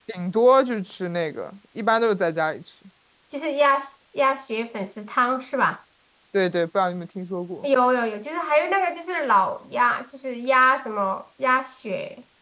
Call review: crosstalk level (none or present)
none